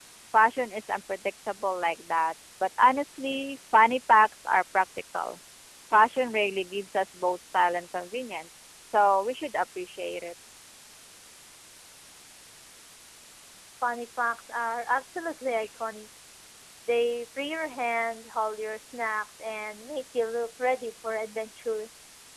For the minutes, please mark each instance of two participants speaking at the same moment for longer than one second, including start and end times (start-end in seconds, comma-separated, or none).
none